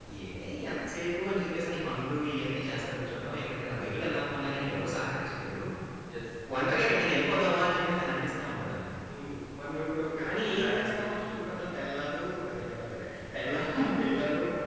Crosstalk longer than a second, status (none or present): present